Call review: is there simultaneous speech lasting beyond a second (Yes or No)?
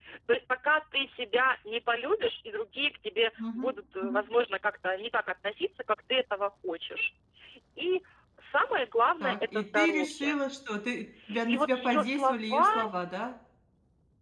Yes